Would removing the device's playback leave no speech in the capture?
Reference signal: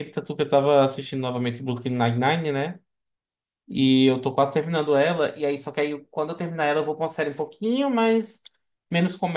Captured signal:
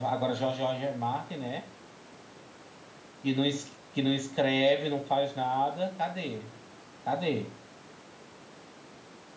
No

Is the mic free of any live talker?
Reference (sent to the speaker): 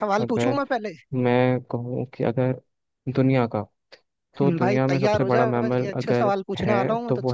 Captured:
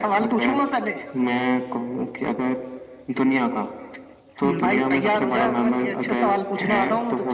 Yes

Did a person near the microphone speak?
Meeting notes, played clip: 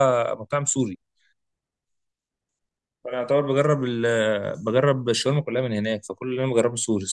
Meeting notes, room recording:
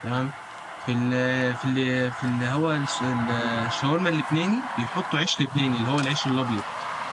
Yes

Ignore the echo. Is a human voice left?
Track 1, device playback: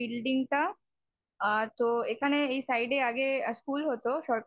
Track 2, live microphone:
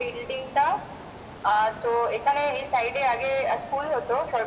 No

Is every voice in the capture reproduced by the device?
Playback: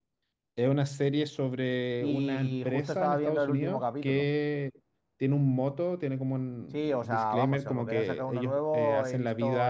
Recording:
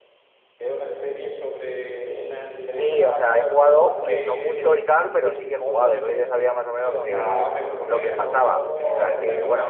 No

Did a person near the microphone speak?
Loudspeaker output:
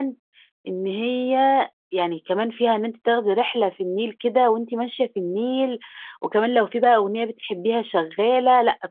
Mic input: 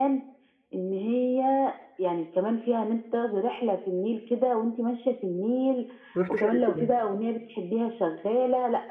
Yes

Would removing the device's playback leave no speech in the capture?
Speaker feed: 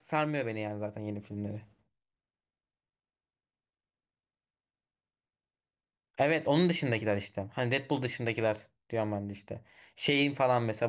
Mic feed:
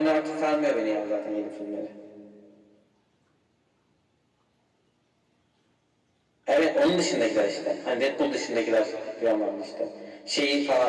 Yes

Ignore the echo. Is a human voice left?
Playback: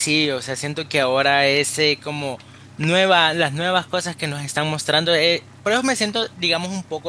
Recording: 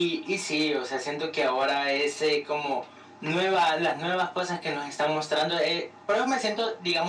No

